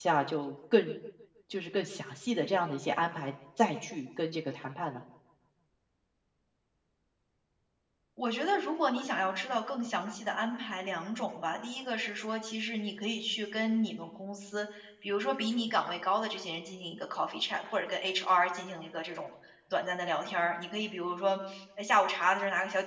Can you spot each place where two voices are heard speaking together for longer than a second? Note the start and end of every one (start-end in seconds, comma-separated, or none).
none